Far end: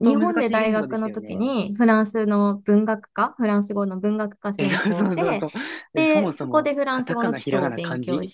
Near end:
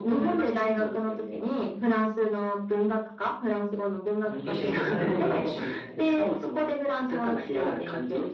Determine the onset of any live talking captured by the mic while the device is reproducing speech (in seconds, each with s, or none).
4.2 s